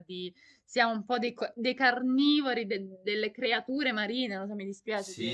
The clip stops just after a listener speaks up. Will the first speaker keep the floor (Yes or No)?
No